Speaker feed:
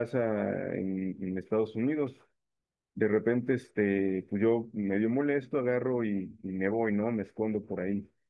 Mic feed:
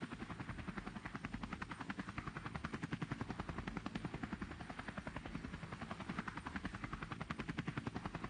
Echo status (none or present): none